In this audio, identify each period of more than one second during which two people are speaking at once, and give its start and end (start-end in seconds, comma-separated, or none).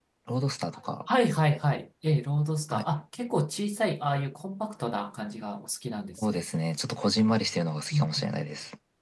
none